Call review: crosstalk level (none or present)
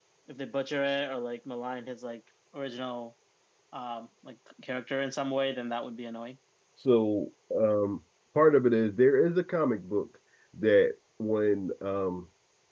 none